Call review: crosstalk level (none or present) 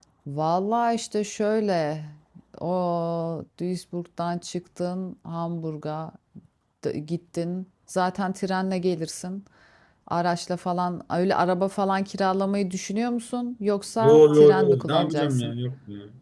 present